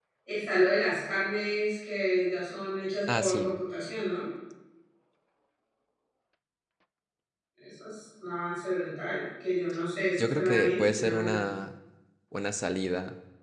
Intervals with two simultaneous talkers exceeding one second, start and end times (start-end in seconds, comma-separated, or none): 10.2-11.4